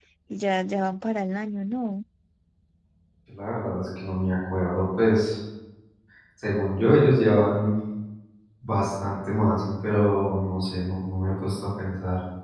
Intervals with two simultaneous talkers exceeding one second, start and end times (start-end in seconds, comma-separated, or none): none